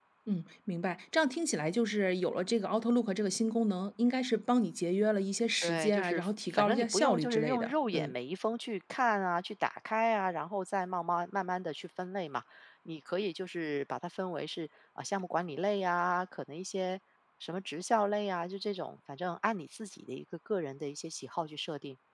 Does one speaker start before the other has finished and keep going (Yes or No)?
Yes